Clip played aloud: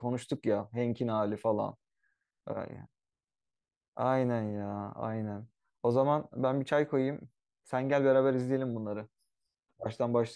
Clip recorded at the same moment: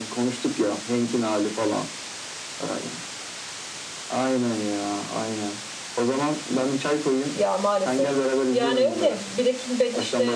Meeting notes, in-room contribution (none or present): present